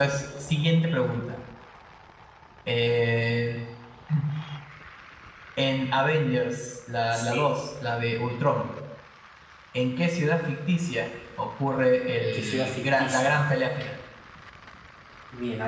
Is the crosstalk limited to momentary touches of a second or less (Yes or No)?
No